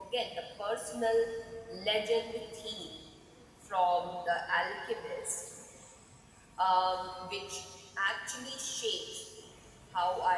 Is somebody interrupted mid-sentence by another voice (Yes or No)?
No